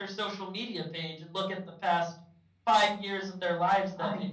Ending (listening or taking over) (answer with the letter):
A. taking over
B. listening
B